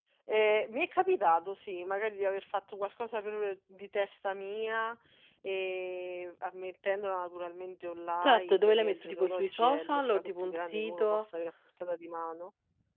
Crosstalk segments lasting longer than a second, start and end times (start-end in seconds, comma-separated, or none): 8.2-11.2